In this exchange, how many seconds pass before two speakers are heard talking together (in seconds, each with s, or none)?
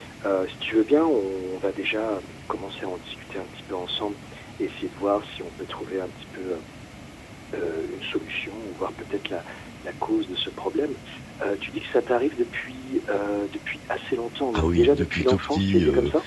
14.5 s